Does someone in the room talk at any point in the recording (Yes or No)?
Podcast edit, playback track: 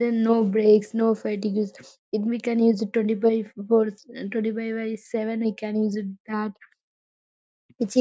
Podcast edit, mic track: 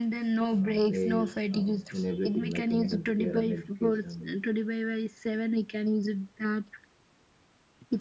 Yes